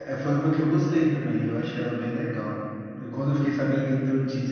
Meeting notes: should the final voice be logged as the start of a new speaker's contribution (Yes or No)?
No